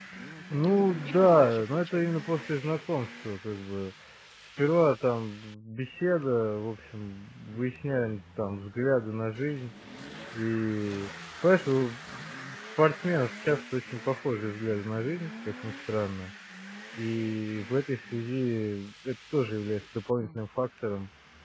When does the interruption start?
0.6 s

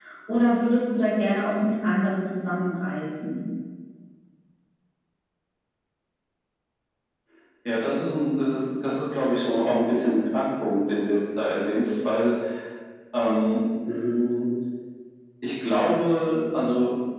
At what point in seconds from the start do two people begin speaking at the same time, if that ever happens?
none

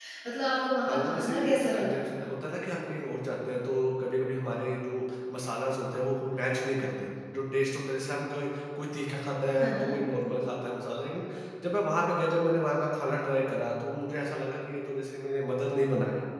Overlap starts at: 0.8 s

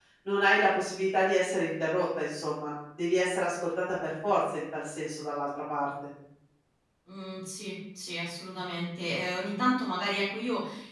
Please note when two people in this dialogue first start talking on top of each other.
none

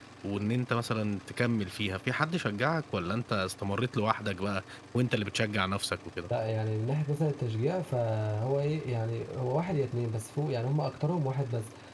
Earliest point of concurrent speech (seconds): none

